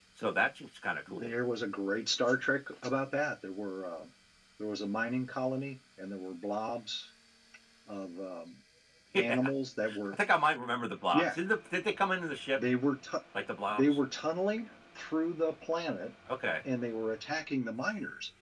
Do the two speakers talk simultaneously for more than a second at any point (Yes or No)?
No